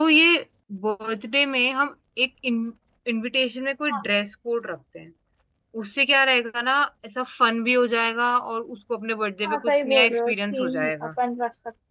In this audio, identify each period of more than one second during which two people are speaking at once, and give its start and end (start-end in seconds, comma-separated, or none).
9.4-11.1